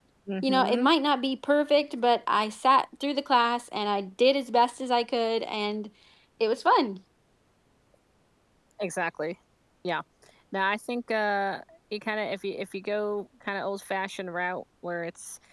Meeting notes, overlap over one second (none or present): none